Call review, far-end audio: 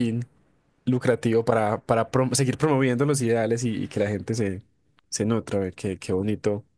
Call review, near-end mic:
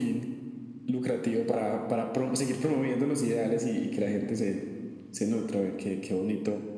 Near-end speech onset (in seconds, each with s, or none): none